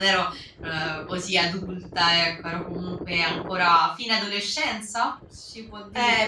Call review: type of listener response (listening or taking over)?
taking over